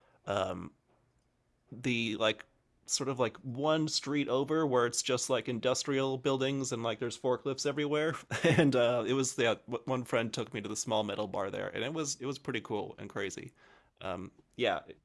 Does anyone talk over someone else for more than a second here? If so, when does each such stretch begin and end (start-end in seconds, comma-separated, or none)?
none